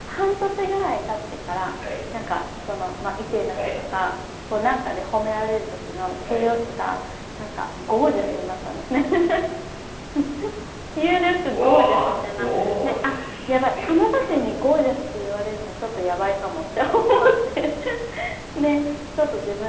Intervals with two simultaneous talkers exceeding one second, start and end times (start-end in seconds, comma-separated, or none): 11.5-14.4